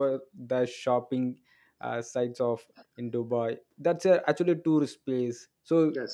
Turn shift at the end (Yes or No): No